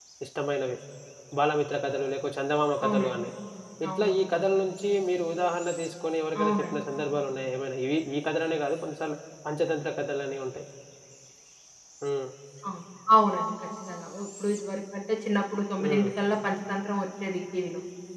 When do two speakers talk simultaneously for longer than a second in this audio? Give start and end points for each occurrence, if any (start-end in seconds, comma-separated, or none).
none